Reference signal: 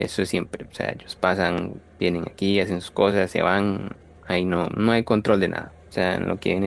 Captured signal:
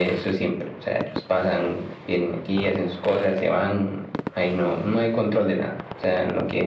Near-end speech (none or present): none